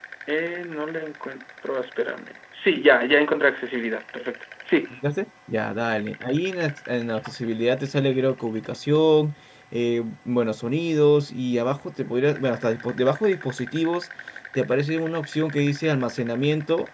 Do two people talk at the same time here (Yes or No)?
No